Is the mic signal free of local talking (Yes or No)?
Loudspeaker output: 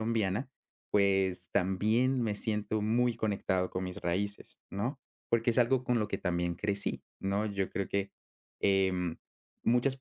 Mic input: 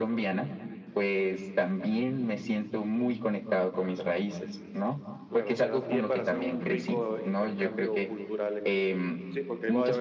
No